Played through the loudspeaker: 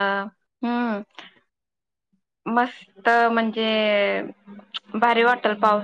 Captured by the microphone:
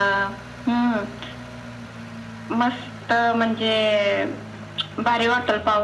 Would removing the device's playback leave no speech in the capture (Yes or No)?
Yes